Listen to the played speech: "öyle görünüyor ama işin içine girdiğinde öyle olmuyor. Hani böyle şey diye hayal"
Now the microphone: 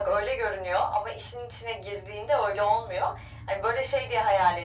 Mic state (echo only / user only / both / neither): echo only